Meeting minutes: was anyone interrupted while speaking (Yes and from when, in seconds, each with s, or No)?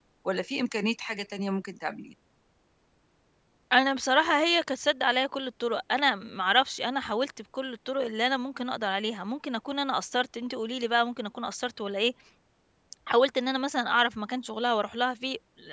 No